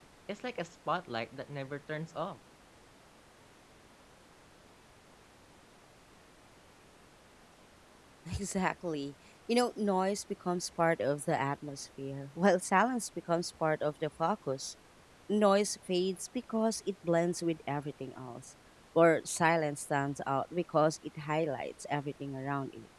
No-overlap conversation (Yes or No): Yes